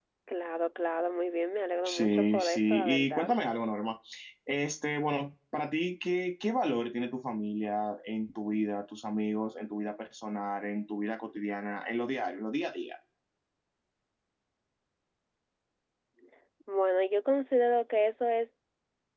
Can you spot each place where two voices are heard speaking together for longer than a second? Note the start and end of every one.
1.9-3.3

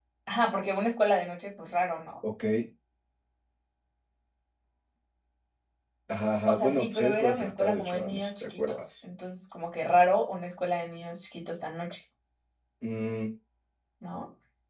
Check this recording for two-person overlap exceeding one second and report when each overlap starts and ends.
6.5-8.8

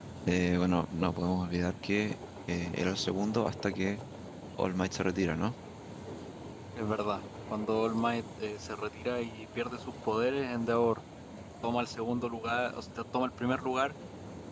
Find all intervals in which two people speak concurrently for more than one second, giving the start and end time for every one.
none

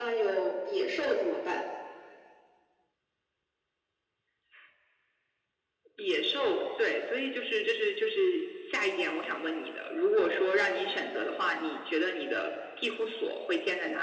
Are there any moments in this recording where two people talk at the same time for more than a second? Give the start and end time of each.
none

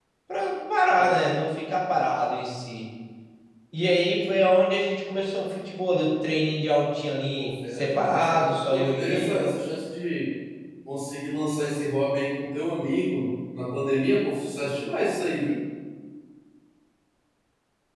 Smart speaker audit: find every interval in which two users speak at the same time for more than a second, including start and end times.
7.4-9.5

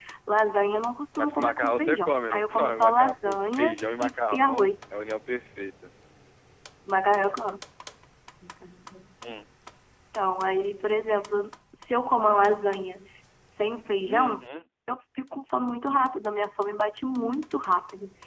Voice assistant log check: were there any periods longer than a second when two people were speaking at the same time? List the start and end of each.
1.2-4.7

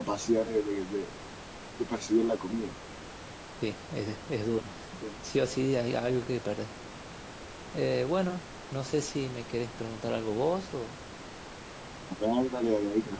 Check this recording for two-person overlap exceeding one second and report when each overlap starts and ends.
none

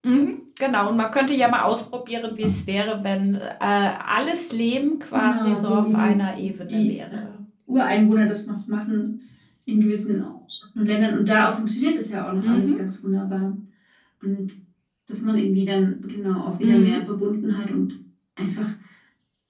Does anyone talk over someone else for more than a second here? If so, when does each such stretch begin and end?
5.1-6.9

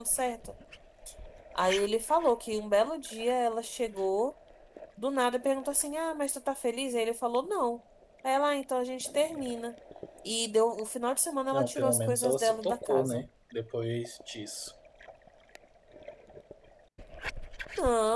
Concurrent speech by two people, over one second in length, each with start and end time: 11.5-13.2

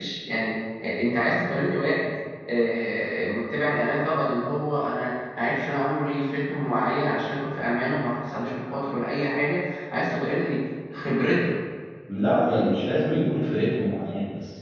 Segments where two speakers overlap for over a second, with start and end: none

